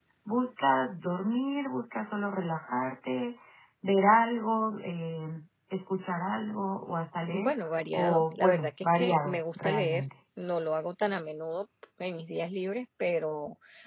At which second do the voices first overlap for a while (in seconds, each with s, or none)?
7.3 s